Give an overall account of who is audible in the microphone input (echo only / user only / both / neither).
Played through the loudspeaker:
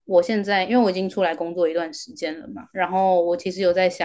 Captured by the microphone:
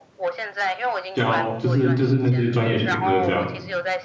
both